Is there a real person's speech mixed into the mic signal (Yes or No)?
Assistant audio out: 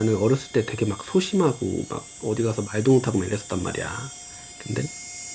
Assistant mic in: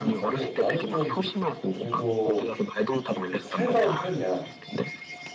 Yes